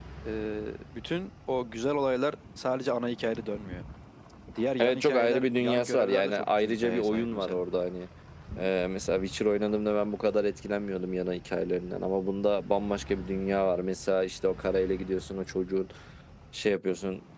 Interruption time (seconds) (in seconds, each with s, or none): 4.8 s